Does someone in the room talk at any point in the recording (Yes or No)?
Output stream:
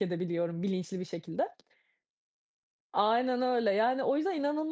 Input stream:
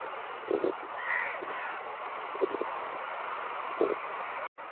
No